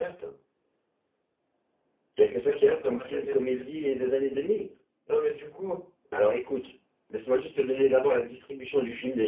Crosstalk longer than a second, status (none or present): present